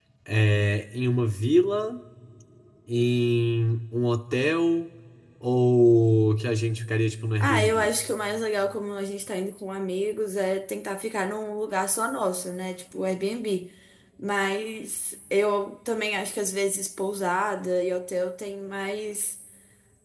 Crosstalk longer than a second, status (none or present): none